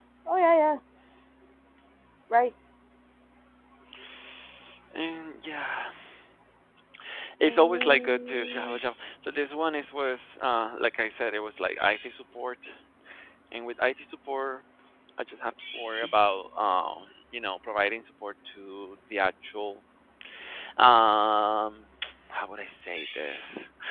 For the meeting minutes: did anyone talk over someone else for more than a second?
Yes, from 7.4 s

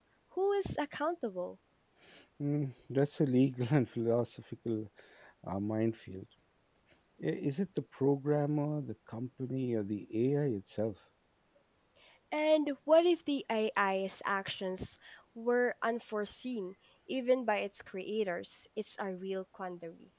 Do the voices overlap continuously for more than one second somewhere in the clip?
No

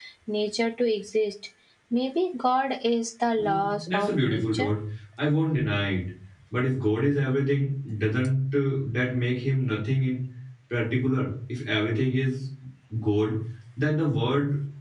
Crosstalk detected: Yes, from 3.4 s

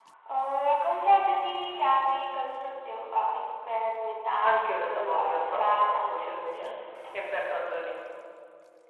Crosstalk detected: Yes, from 4.4 s

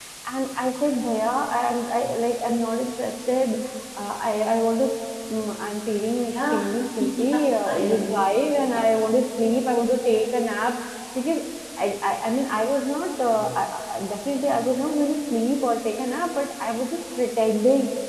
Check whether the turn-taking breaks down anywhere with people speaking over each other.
Yes, from 6.3 s

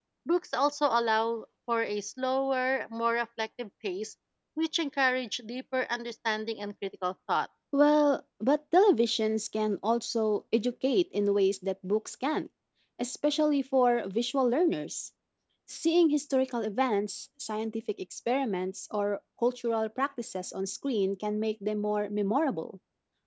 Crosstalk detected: No

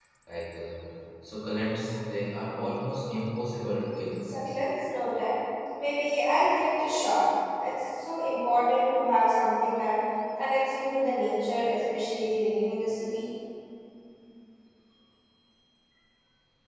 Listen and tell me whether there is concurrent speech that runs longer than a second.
No

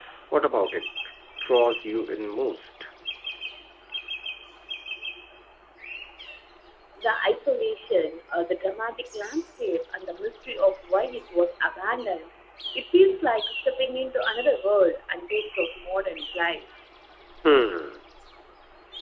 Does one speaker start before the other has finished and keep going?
No

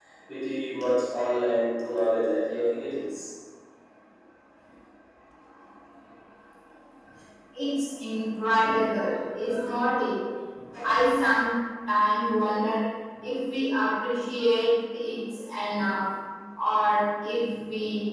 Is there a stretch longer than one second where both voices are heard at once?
No

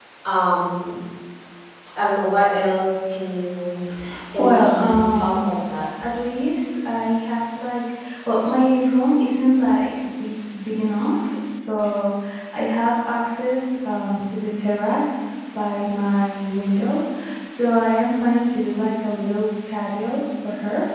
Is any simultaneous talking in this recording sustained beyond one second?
Yes, from 4.4 s

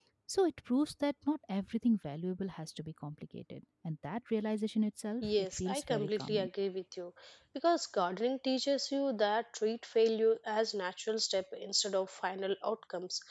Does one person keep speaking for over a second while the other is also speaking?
Yes, from 5.2 s

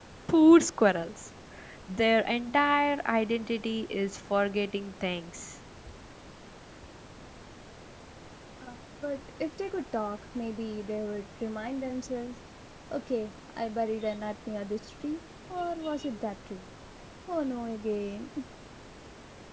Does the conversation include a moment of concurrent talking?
No

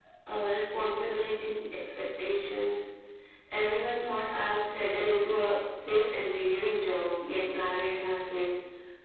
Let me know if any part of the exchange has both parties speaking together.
No

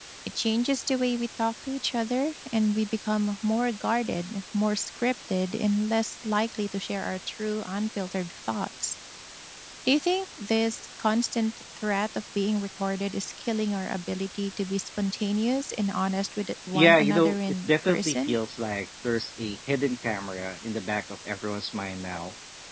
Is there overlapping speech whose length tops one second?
Yes, from 16.7 s

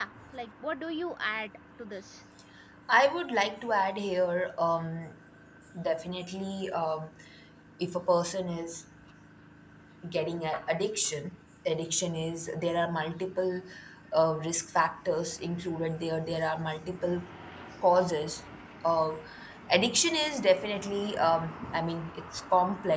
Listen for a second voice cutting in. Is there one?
No

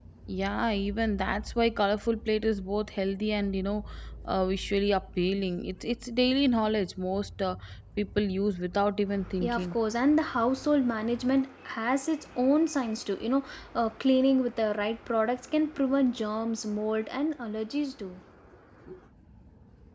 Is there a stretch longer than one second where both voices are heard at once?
No

